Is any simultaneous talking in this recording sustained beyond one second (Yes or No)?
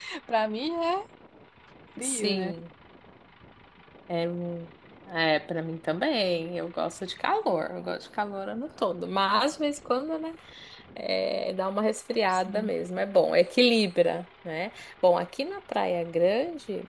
No